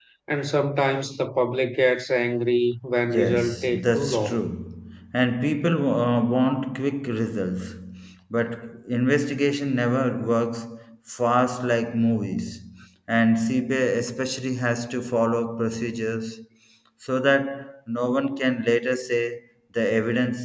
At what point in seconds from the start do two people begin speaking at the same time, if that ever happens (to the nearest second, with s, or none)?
3 s